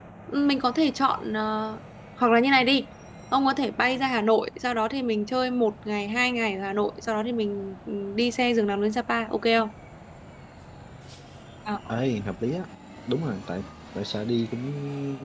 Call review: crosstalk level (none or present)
none